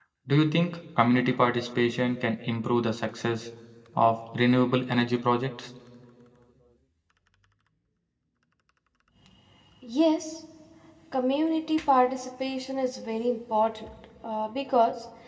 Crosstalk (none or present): none